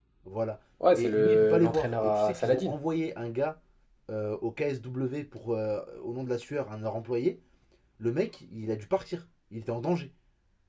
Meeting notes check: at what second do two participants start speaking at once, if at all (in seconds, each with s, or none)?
0.9 s